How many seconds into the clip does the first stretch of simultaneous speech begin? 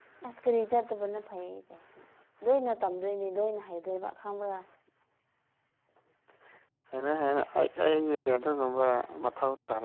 none

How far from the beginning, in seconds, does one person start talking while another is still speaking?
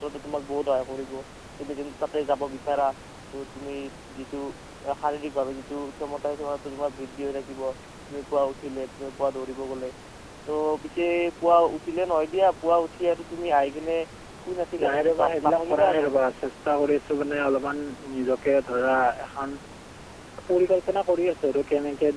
14.8 s

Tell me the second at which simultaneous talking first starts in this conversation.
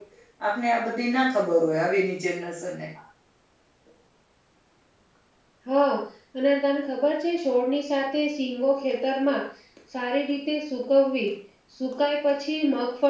none

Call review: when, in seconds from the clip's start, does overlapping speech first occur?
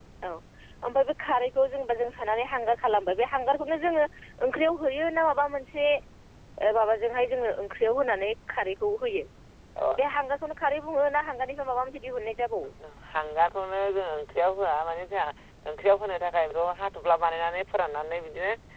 none

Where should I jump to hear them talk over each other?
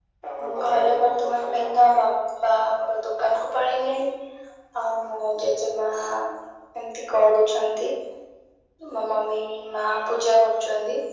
0.6 s

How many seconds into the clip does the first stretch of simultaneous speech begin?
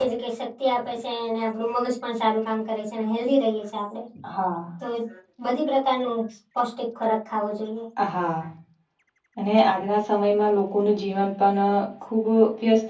none

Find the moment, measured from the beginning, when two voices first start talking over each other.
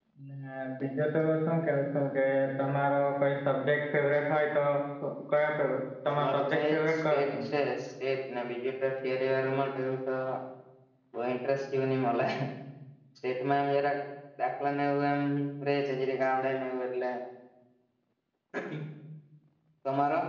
6.1 s

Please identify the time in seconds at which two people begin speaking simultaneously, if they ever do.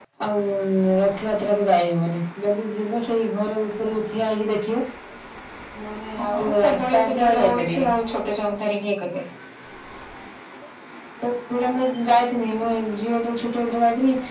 6.2 s

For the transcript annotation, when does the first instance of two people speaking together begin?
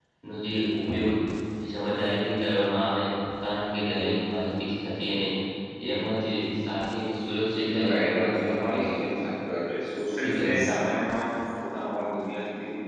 7.6 s

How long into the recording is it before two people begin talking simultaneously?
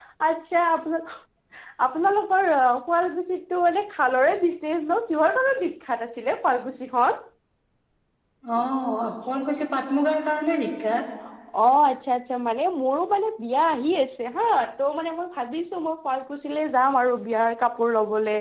none

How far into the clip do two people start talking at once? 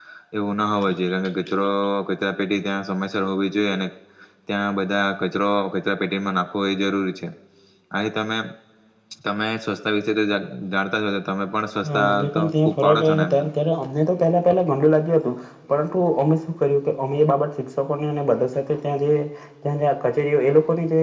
11.8 s

